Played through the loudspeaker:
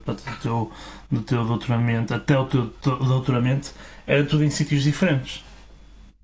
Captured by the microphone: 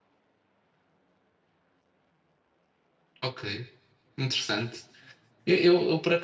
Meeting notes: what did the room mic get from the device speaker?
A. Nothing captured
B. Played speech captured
A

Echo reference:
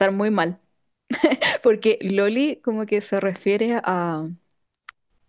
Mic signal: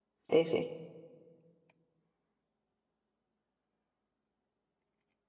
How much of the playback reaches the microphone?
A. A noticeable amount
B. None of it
B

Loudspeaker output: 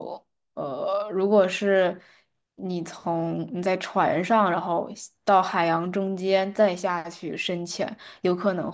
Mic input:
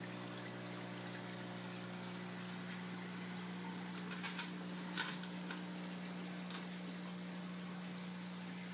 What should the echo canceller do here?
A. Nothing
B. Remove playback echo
A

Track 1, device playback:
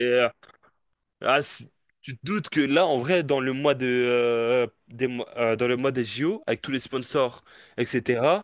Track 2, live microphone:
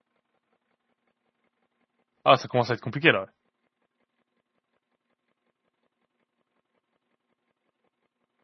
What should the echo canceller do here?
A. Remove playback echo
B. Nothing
B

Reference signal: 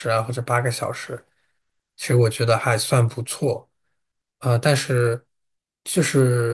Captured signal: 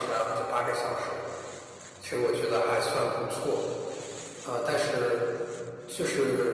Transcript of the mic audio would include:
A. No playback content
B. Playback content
B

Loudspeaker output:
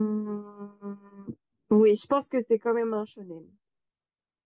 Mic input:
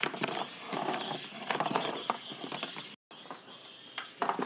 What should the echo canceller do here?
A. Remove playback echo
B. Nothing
B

